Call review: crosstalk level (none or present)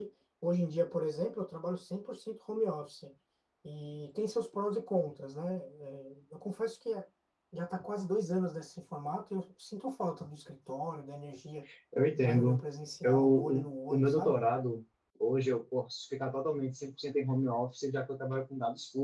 present